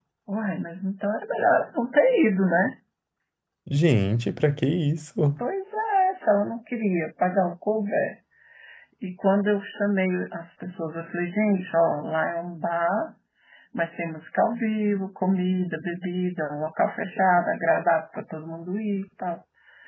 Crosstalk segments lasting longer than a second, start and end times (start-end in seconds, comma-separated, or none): none